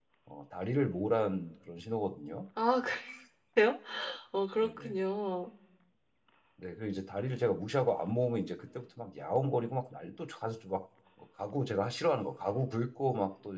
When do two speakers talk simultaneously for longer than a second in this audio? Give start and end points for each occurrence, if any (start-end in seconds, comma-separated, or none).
none